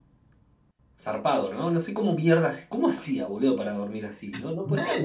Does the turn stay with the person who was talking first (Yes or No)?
Yes